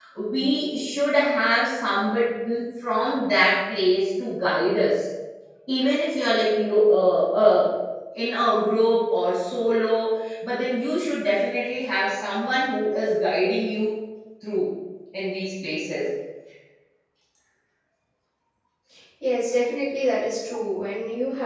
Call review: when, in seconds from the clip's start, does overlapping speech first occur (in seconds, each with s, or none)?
none